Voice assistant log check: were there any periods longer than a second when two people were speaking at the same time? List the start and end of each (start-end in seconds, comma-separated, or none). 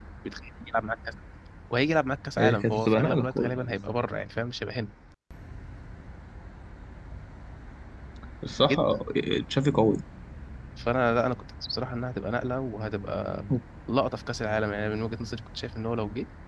2.4-3.8